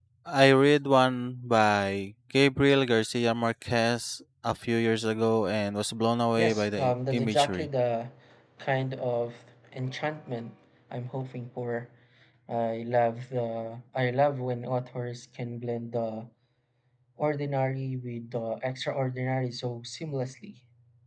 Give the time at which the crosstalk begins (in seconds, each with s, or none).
6.4 s